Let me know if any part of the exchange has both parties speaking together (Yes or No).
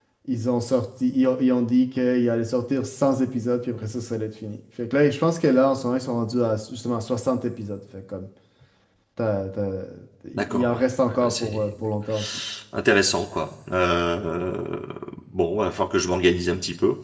Yes